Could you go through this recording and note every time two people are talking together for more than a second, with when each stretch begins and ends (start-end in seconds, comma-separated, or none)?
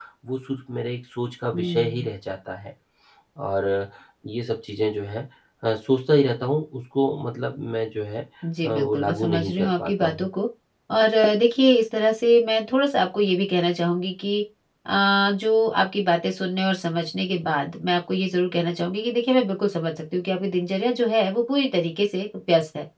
8.7-10.3